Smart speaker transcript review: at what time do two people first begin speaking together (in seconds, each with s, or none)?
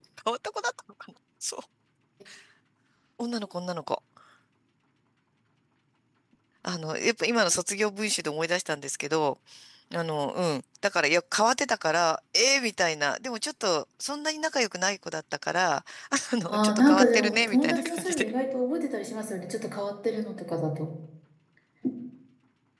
16.5 s